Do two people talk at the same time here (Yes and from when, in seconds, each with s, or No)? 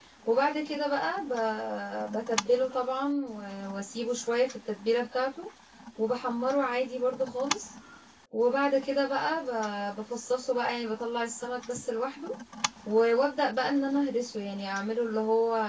No